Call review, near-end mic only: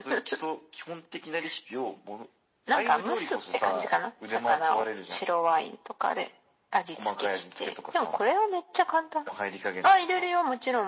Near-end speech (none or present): none